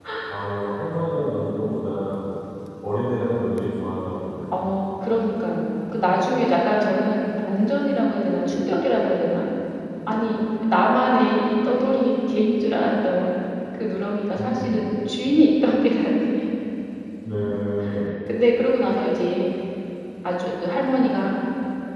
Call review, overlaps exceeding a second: none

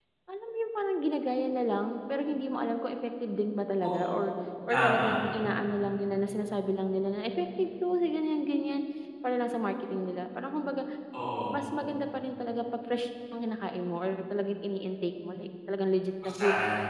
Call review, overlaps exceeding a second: none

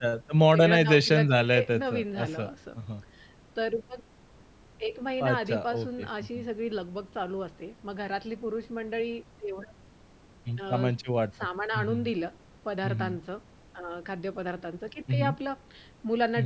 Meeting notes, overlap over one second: present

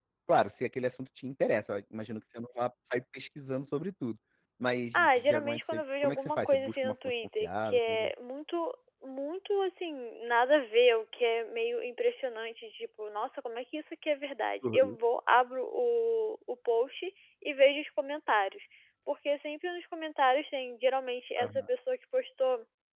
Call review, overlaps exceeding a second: present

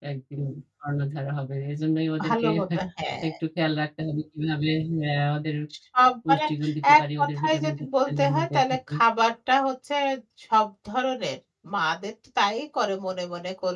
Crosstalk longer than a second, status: present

